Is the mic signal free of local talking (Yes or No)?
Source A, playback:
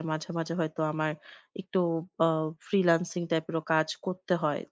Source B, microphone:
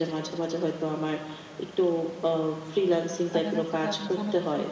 No